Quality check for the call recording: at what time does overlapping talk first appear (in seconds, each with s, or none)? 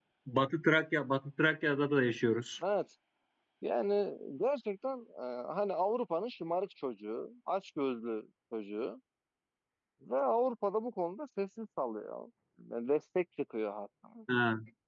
none